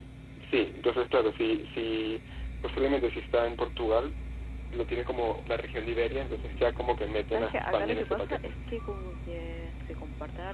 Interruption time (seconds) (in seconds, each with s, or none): 6.1 s